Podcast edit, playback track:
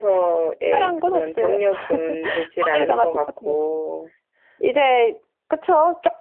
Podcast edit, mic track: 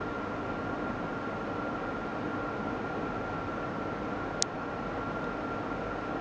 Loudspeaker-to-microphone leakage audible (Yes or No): No